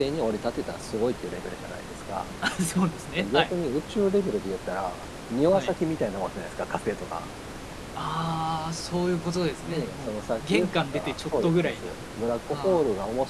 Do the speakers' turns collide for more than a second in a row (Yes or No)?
Yes